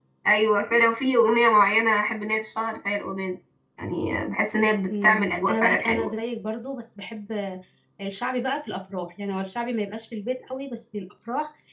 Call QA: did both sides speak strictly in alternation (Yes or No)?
No